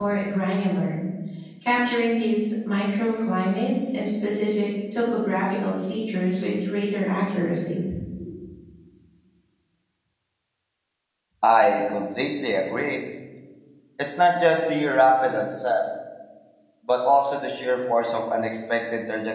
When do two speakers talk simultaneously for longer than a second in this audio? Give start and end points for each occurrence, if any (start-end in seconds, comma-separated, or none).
none